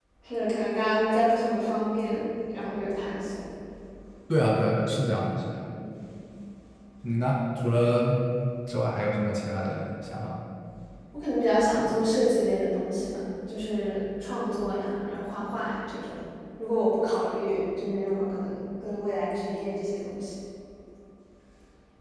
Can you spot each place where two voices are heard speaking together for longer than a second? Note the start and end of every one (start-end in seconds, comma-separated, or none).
none